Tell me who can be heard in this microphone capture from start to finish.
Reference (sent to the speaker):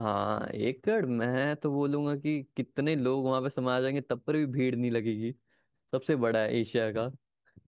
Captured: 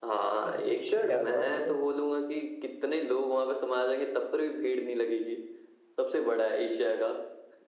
both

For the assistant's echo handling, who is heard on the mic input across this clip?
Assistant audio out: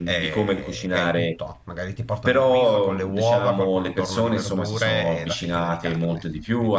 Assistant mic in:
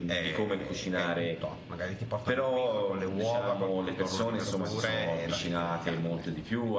echo only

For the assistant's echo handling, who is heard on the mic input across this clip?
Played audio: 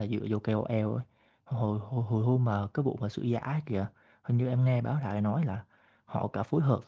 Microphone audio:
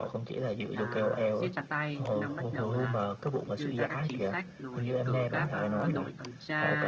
both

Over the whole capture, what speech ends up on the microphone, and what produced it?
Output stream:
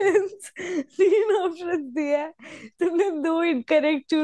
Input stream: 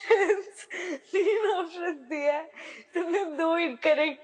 echo only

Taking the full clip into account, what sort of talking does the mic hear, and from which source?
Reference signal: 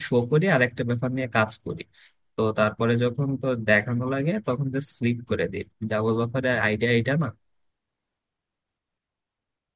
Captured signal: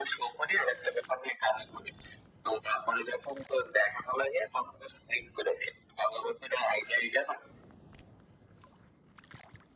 echo only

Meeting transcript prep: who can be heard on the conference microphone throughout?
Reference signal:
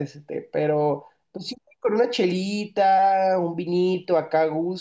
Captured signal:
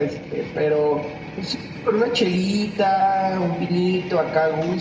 echo only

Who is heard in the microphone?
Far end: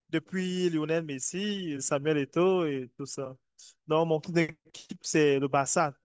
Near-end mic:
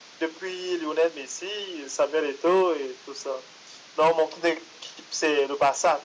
echo only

